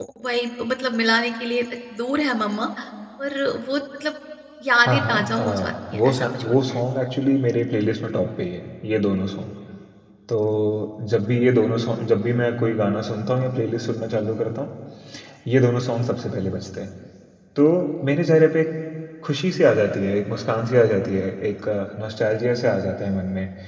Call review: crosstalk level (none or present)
present